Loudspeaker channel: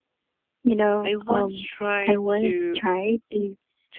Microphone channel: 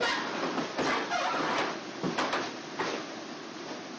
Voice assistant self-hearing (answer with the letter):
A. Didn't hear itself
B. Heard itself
A